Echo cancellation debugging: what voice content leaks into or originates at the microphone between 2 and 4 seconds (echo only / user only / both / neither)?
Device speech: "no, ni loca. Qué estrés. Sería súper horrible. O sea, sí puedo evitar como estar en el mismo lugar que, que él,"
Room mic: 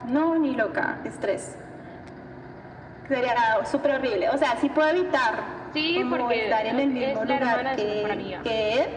echo only